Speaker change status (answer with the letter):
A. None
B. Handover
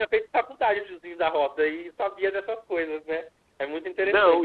B